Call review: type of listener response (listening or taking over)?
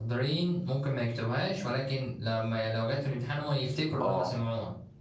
taking over